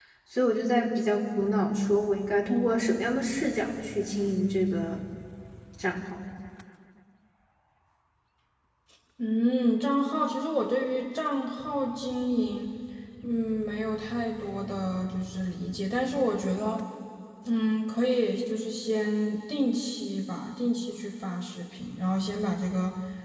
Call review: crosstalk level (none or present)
none